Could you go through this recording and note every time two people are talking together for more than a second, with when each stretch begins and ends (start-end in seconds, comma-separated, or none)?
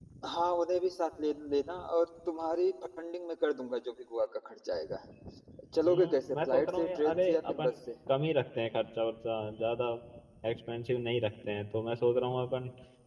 5.8-7.7